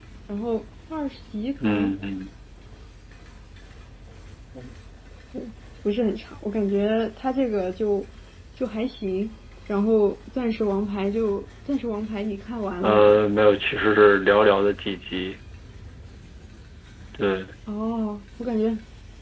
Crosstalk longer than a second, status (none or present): none